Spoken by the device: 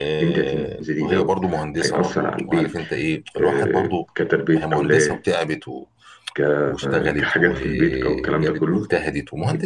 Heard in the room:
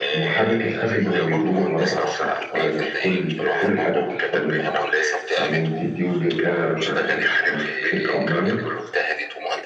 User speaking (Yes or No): Yes